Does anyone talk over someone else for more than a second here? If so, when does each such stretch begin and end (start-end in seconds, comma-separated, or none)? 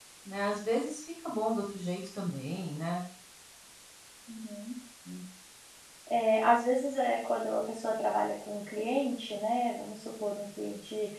none